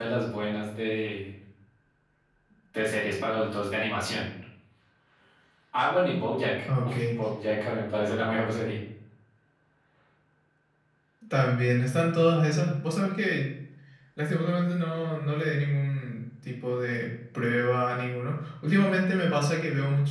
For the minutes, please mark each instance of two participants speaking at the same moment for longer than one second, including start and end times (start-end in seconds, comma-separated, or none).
none